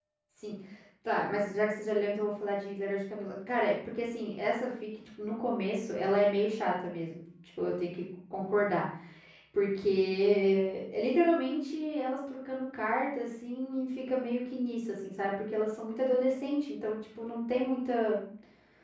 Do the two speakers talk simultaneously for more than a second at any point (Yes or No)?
No